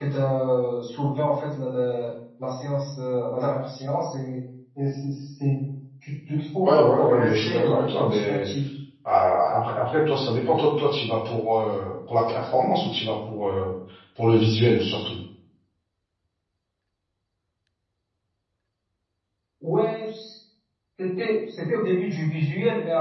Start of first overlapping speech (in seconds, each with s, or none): 6.6 s